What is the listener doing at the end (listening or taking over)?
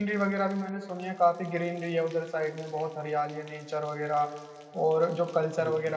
listening